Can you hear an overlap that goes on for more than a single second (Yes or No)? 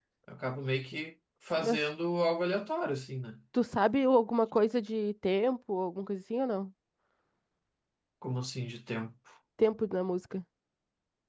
No